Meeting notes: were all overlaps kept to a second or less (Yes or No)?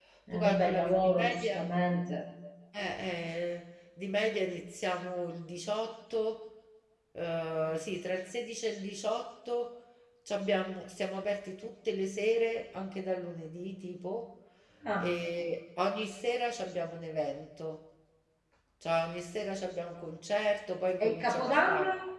No